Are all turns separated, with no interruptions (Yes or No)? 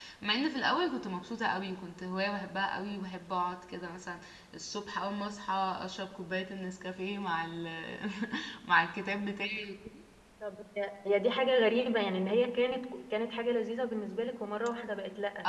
Yes